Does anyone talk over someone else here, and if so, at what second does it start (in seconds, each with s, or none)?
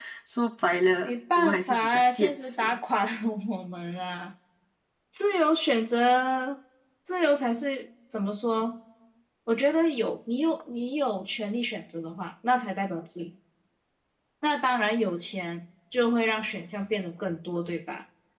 1.0 s